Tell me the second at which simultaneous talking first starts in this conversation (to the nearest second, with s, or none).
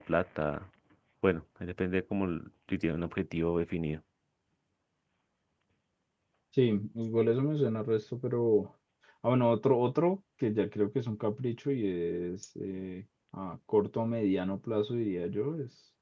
none